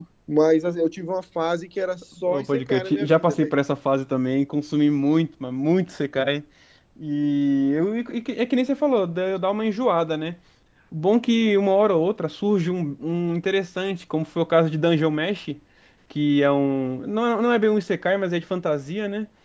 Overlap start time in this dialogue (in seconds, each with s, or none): 2.2 s